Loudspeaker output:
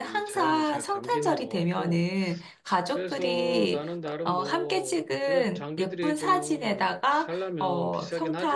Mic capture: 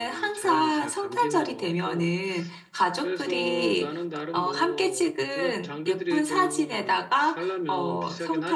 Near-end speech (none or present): none